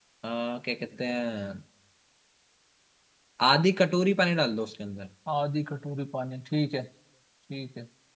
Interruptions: none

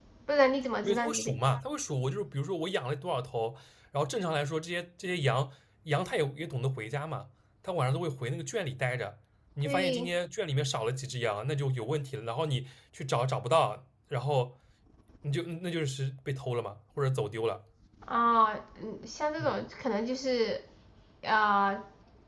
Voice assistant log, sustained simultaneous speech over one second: none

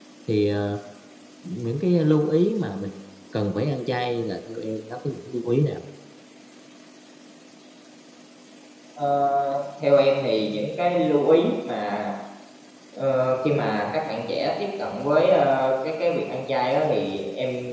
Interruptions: none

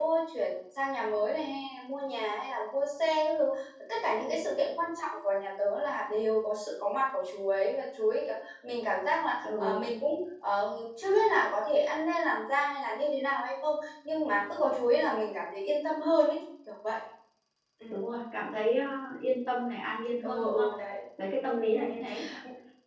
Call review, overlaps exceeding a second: none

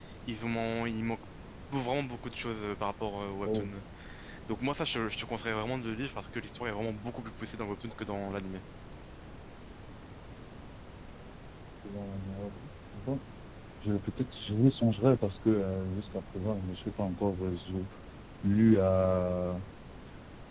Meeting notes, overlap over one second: none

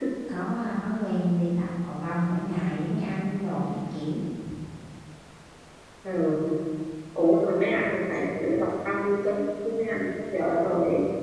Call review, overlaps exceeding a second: none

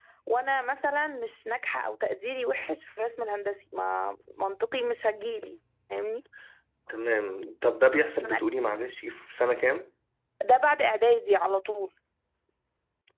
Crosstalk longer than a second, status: none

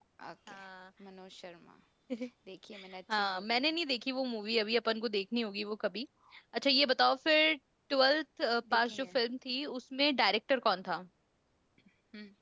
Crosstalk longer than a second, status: none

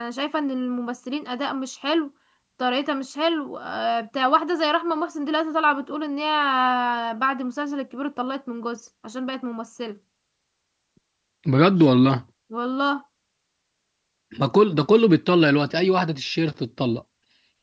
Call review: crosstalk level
none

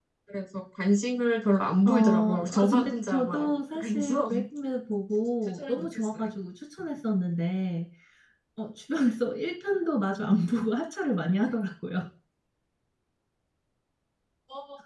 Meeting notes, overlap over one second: present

